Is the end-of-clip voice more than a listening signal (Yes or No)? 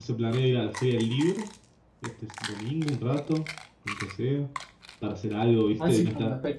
Yes